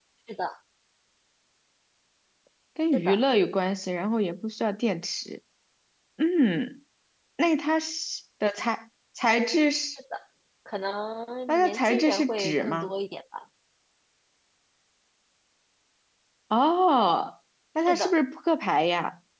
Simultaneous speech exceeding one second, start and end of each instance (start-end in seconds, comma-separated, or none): 11.5-12.9